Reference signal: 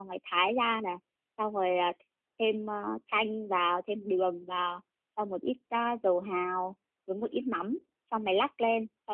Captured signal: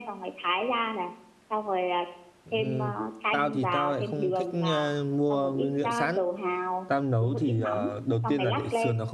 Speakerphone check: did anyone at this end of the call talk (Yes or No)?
Yes